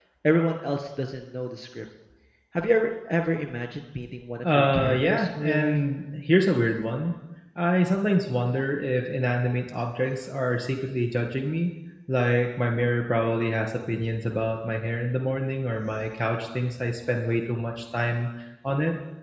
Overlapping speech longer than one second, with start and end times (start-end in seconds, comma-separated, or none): 4.4-5.8